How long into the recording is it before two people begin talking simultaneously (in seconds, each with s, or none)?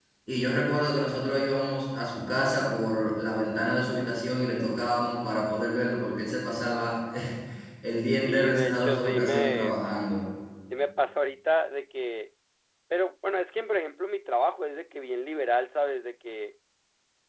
8.2 s